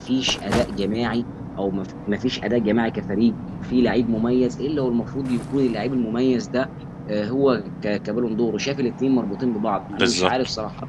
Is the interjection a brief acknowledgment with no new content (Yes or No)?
Yes